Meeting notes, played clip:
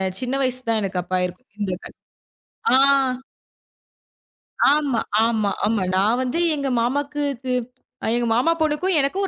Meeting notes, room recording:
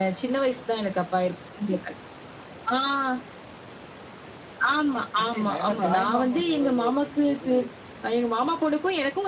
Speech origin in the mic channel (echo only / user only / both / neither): both